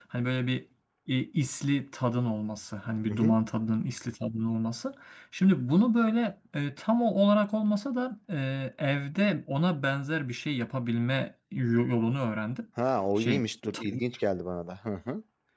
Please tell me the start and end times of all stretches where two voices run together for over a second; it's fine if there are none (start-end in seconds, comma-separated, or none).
none